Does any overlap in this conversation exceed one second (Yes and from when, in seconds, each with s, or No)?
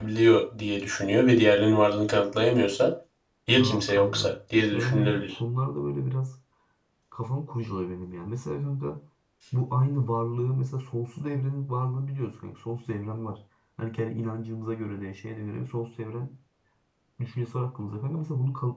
Yes, from 3.6 s